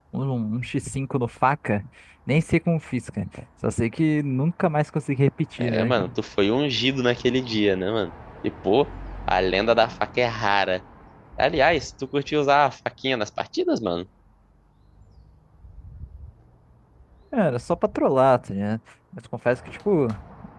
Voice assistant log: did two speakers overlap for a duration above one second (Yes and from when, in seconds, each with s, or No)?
No